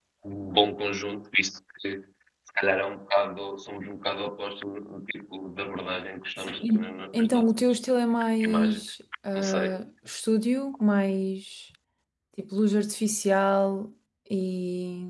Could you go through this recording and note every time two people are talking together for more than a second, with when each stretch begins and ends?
6.4-7.8

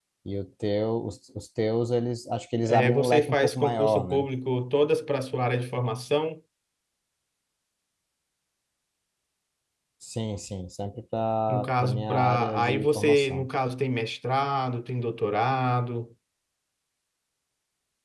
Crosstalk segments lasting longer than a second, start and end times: 2.6-4.3, 11.5-13.5

